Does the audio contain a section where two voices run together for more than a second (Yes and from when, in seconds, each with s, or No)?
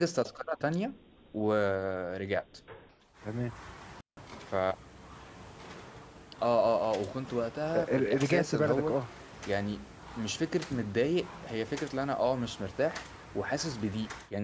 Yes, from 7.7 s